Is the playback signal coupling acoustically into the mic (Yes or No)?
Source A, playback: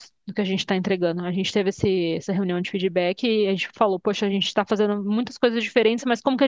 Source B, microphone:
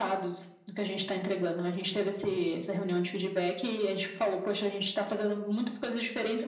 Yes